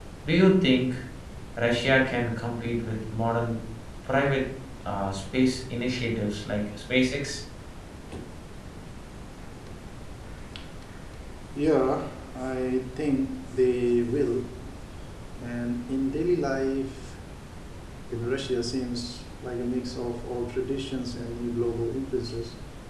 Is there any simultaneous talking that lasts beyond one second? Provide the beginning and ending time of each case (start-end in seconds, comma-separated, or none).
none